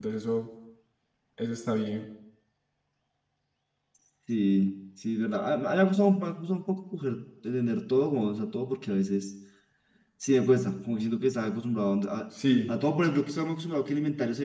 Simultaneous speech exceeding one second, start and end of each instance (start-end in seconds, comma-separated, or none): none